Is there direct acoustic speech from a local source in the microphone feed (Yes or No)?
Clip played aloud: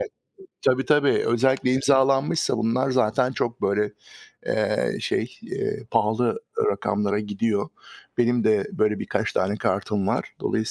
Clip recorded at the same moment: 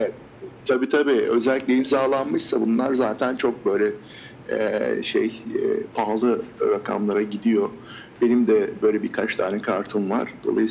No